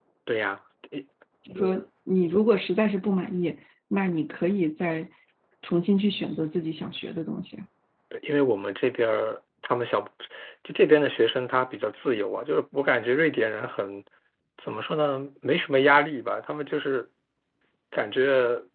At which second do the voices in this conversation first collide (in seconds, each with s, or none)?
none